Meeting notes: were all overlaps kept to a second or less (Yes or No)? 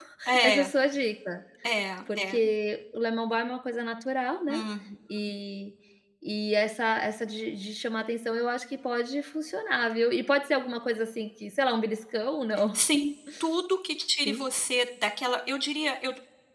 Yes